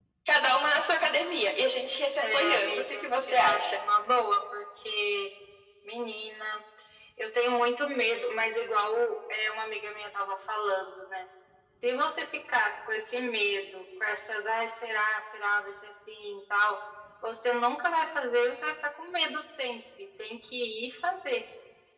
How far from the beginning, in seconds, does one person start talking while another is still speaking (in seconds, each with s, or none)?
2.2 s